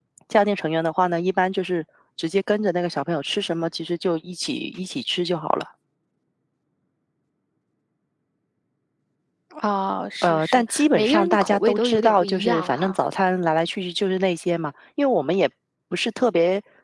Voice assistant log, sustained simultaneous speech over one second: present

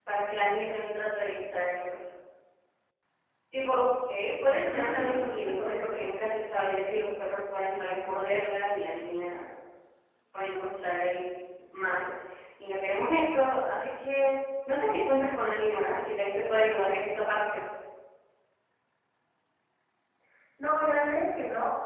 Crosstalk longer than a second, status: present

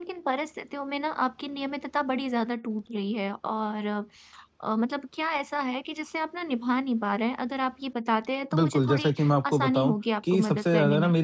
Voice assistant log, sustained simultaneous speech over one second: present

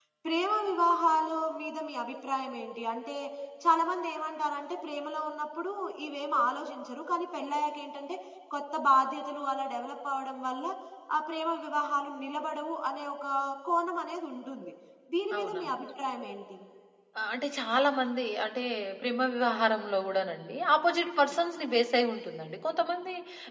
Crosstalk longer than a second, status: none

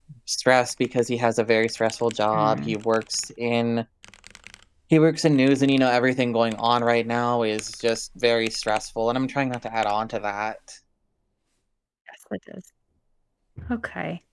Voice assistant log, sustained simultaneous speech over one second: none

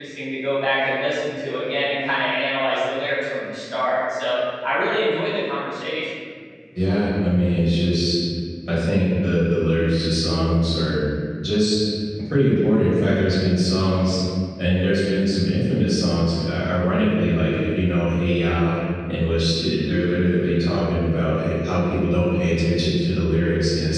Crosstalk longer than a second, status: none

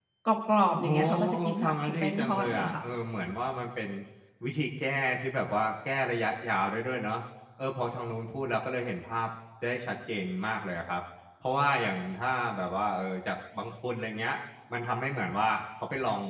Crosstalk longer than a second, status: present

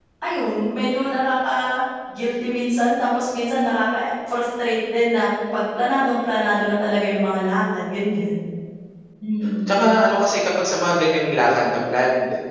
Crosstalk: none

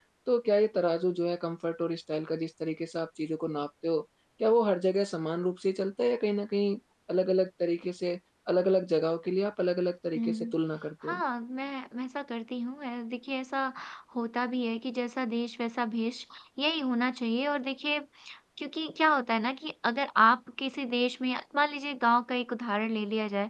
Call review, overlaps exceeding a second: none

